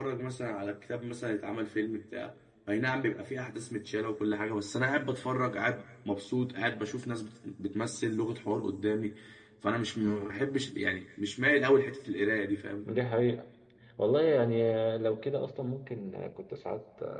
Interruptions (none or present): none